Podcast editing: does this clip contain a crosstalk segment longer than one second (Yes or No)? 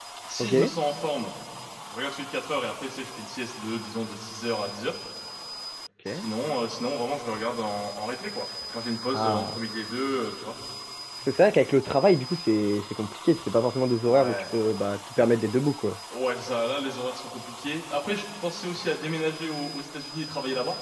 No